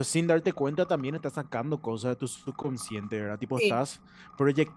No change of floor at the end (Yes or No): Yes